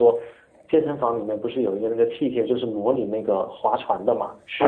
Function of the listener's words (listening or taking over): taking over